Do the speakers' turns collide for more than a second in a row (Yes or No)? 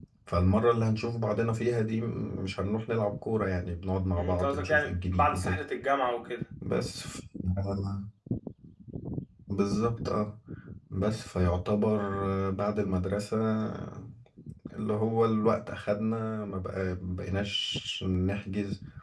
Yes